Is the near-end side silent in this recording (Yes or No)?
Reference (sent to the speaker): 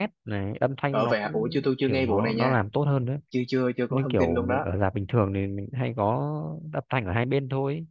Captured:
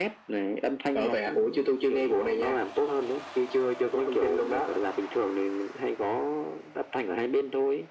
Yes